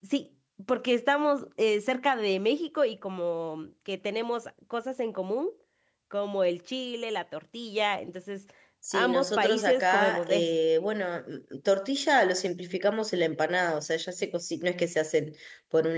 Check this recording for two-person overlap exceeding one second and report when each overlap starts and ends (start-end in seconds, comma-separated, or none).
8.9-10.5